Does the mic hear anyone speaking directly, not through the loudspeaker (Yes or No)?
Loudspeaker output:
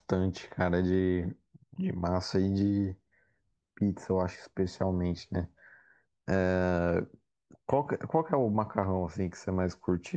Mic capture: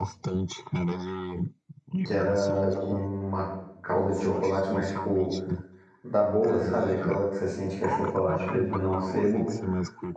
Yes